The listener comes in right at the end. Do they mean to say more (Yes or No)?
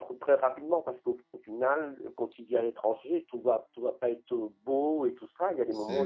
No